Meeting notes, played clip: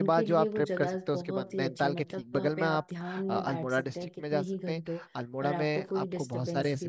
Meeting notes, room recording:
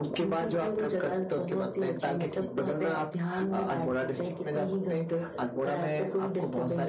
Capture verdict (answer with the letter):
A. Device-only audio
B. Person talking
A